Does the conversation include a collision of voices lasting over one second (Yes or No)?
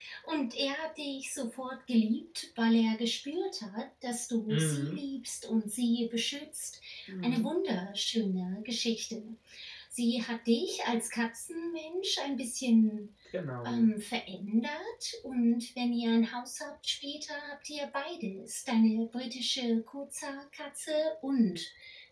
No